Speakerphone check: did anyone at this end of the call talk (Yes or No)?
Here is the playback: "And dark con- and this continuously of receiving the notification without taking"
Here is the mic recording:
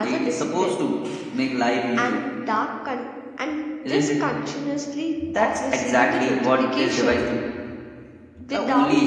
Yes